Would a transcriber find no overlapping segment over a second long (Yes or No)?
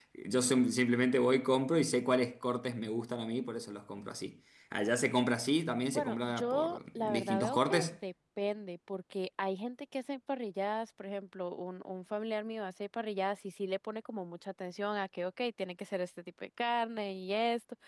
No